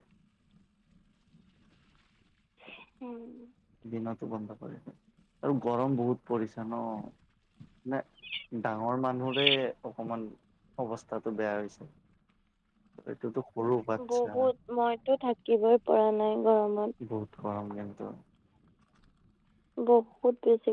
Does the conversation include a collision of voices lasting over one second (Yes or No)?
No